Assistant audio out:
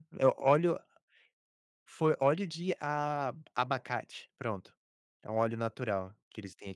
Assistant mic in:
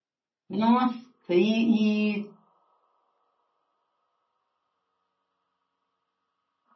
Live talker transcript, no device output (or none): Nossa, e e